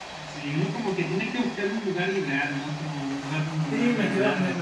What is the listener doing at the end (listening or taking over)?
taking over